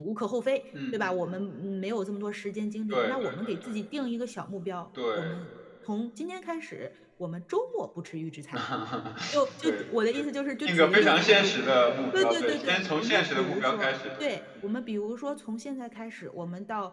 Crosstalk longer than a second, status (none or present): present